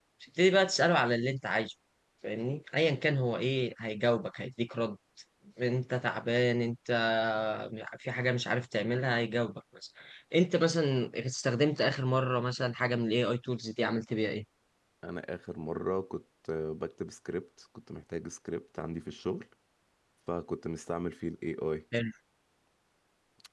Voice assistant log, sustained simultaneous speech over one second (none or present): none